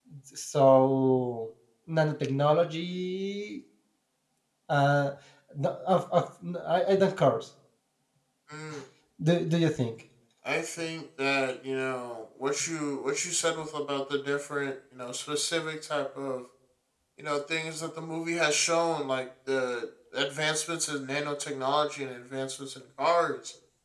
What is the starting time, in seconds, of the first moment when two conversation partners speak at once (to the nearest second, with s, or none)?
none